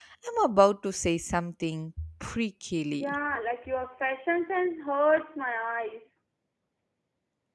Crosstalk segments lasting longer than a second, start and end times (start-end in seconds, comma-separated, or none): none